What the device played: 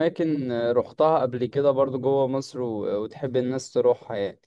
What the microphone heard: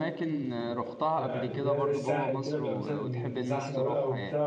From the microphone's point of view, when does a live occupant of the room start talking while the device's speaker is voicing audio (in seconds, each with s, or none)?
1.2 s